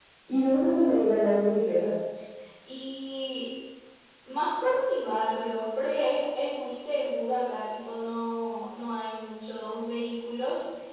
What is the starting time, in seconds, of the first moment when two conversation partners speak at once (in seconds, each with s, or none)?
none